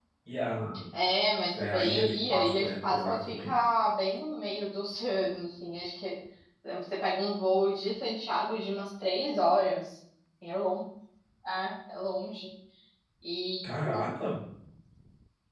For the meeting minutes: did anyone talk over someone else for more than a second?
Yes, from 1.6 s

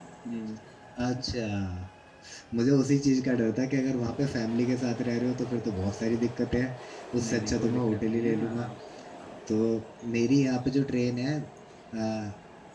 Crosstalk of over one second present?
Yes, from 7.2 s

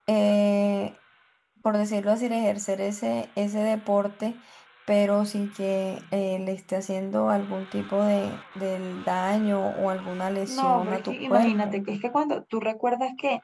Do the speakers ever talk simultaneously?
Yes, from 10.5 s

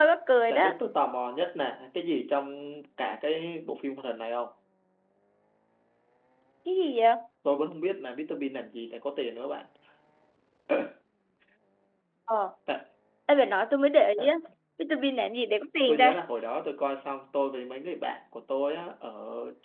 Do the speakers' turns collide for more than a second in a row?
No

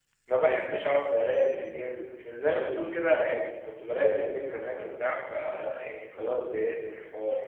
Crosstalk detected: No

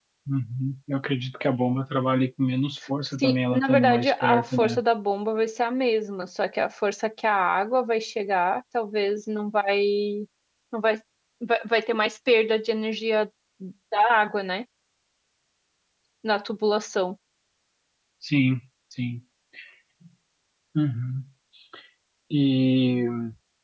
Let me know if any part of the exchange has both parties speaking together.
Yes, from 3.2 s

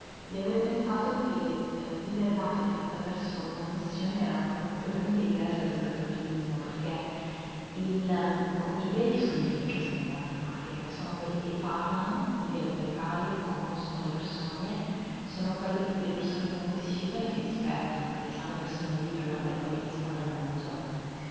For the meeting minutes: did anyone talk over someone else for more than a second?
No

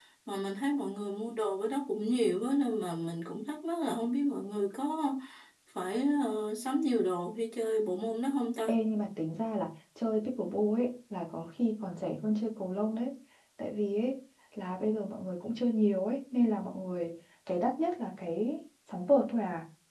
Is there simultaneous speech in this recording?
No

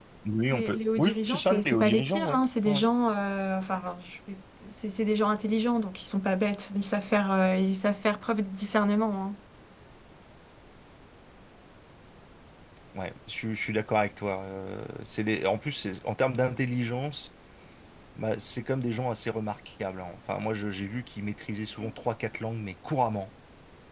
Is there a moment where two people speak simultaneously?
Yes, from 0.5 s

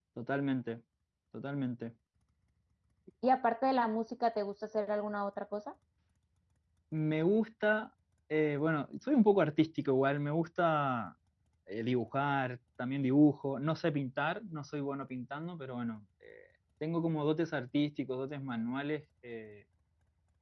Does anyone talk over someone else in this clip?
No

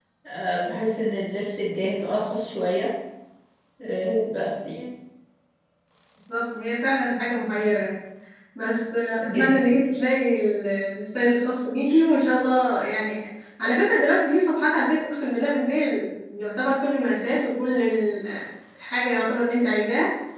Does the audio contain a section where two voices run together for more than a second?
No

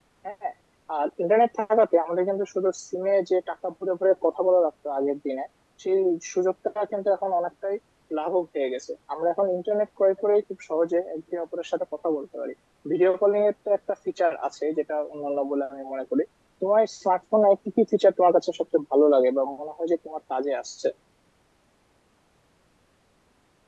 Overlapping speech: No

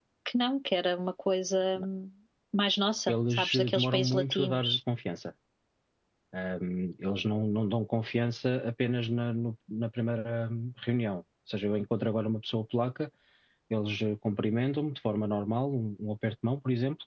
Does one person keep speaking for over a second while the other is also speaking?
Yes, from 3.1 s

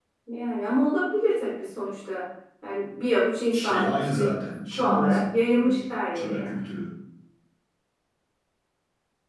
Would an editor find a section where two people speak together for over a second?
Yes, from 3.5 s

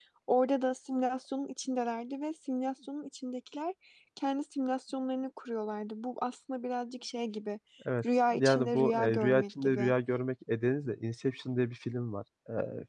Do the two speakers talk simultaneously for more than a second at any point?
Yes, from 8.3 s

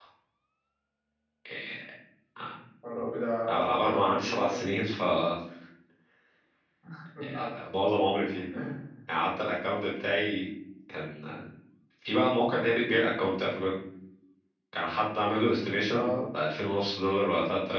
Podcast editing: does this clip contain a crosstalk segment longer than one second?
Yes, from 3.5 s

